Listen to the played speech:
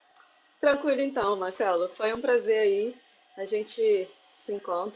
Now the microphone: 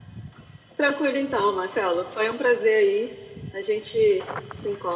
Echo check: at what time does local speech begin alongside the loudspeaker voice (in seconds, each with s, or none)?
none